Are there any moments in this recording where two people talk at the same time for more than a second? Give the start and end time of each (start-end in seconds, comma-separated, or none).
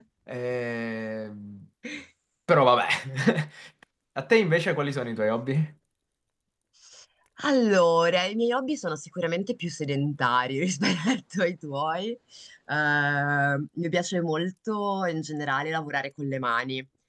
none